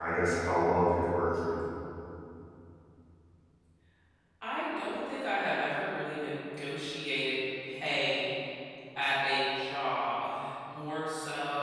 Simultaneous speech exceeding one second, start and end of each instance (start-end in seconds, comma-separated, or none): none